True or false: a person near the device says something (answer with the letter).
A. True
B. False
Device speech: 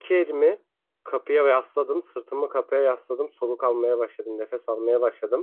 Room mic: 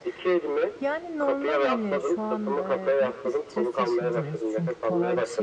A